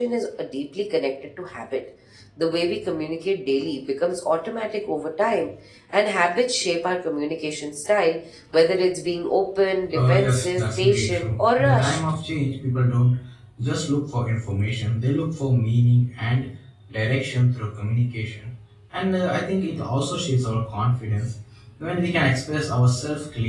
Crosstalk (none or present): present